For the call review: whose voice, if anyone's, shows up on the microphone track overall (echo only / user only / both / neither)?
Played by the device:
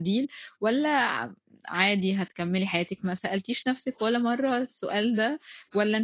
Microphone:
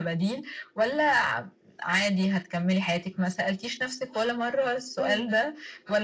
both